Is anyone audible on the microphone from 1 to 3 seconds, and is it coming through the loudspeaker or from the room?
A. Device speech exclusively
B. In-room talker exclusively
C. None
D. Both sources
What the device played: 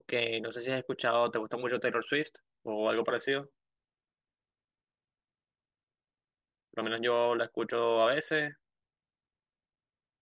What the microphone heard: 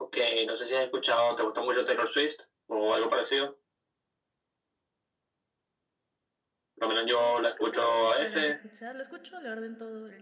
A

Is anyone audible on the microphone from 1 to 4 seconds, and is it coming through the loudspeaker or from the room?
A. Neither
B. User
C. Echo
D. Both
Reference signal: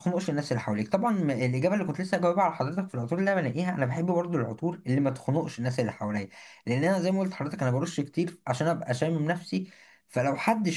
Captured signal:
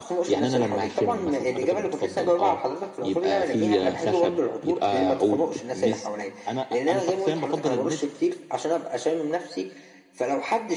D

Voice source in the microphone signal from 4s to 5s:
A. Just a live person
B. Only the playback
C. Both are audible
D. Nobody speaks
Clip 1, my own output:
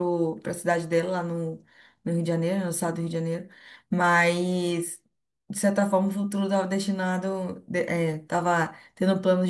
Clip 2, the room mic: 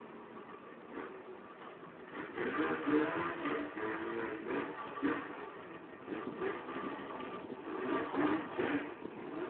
D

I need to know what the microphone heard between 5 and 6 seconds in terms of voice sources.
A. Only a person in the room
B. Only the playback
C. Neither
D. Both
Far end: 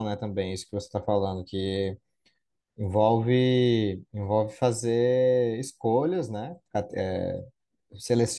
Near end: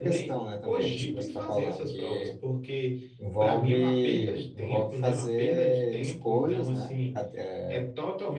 D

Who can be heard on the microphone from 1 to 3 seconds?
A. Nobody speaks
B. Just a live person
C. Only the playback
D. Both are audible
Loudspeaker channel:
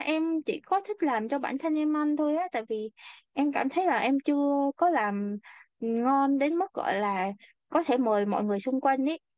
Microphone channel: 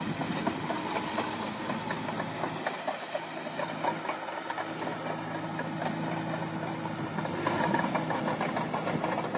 A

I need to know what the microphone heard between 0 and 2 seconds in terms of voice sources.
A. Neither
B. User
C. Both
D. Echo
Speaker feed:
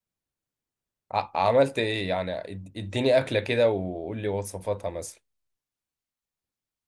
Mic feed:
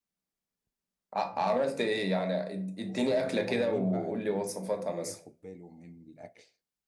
C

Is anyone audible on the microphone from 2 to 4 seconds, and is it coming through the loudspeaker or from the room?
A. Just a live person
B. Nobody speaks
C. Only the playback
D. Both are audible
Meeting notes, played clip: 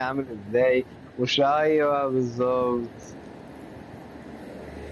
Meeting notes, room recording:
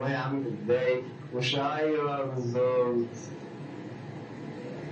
C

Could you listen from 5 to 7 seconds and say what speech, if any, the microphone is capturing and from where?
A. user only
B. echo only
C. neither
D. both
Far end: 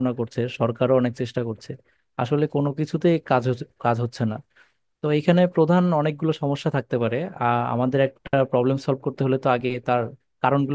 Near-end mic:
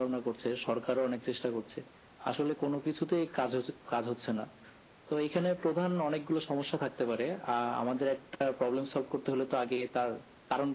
B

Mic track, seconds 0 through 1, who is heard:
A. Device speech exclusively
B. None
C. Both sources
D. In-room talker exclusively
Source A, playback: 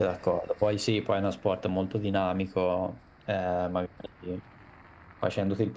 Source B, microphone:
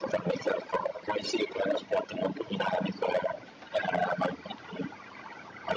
A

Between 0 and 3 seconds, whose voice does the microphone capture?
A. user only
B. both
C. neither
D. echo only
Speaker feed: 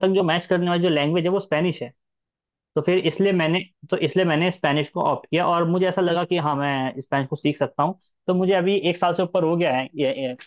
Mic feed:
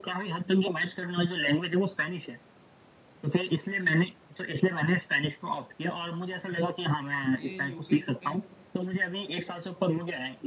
D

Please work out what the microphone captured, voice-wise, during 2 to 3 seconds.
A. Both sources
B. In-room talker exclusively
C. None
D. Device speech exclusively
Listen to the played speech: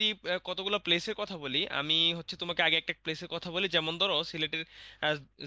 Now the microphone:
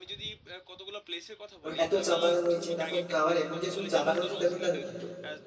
A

